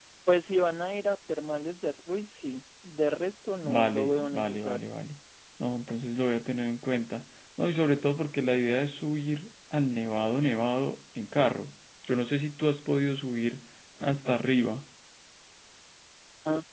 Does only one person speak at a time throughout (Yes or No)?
No